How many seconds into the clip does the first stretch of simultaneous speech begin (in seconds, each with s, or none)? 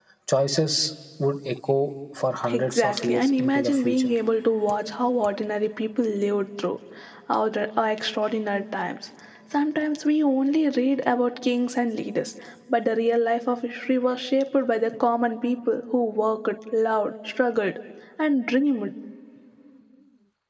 2.4 s